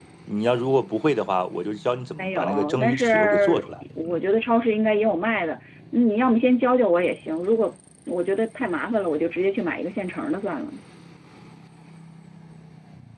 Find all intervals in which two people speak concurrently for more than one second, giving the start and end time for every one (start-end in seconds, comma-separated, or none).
2.2-4.2